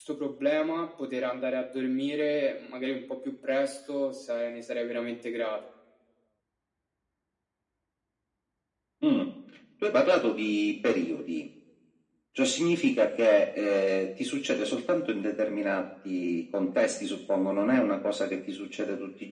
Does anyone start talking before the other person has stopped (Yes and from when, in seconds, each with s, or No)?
No